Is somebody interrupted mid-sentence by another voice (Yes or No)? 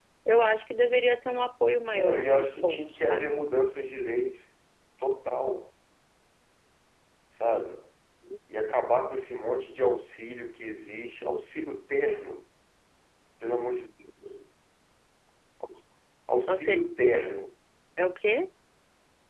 Yes